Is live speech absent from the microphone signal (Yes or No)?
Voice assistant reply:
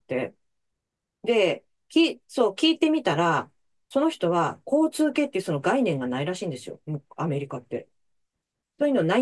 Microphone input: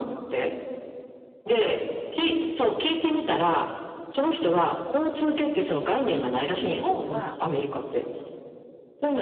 No